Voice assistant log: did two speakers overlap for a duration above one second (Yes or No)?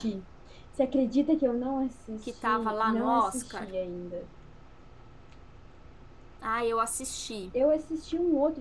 Yes